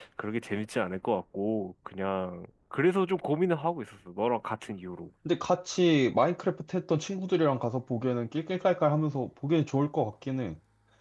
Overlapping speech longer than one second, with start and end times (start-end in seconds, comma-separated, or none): none